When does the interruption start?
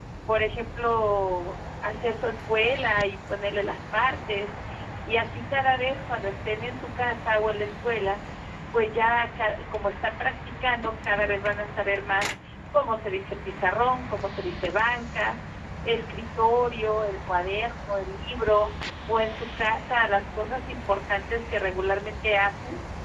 none

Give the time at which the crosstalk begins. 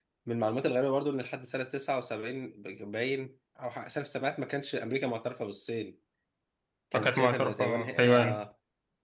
7.0 s

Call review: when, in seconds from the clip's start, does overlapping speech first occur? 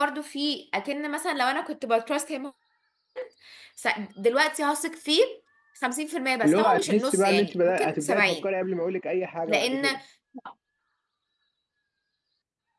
6.4 s

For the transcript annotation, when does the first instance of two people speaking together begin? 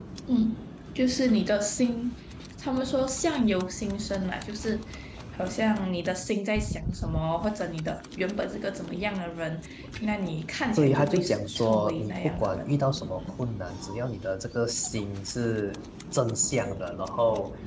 10.8 s

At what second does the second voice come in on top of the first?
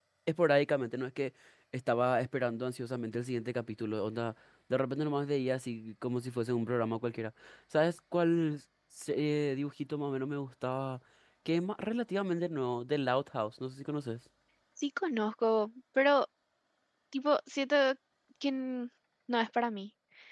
none

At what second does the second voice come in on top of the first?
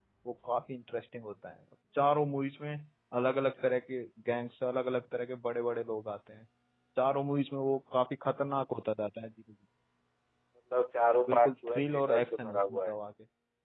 11.3 s

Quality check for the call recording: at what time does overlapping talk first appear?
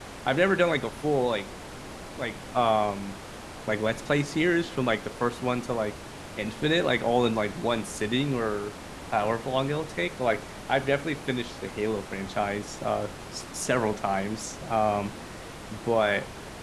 none

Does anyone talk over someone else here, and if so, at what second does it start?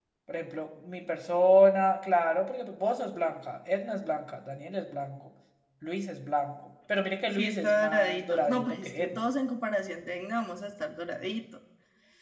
7.4 s

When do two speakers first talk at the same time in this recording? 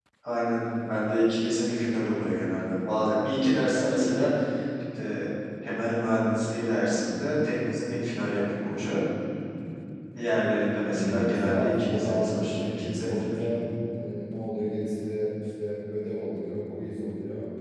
10.9 s

